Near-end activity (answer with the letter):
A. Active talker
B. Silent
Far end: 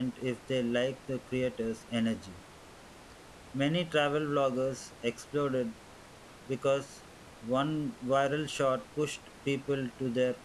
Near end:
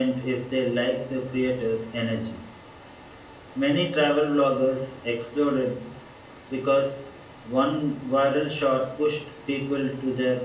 B